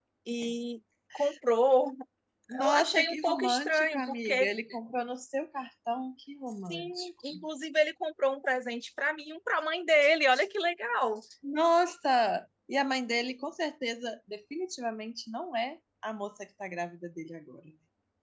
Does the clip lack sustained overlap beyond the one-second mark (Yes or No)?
No